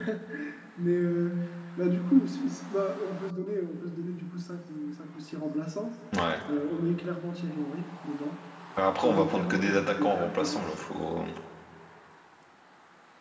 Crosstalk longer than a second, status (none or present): present